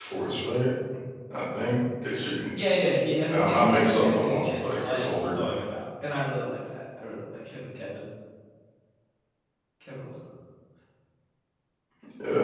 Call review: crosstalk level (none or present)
present